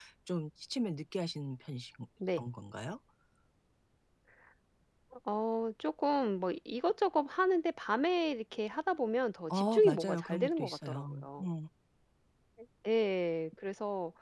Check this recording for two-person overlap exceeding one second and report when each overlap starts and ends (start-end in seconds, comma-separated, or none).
9.5-11.4